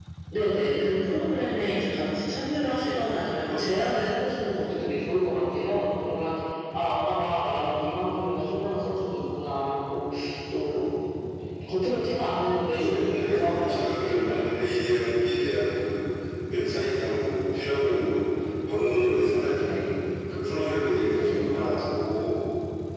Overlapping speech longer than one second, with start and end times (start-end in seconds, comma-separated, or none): 12.8-14.5